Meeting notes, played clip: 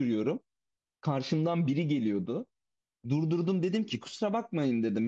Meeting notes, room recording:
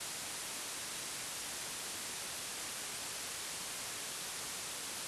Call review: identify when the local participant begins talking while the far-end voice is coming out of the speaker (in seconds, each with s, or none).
none